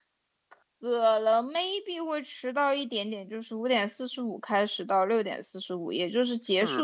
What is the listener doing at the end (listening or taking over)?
listening